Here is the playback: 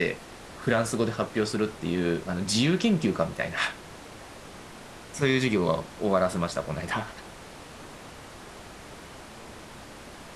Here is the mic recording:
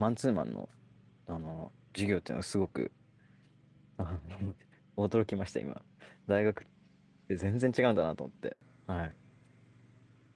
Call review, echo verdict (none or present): none